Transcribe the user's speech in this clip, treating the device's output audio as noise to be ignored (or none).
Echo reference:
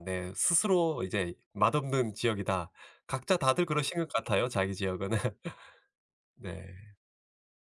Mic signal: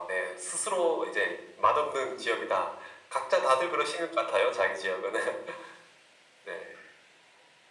none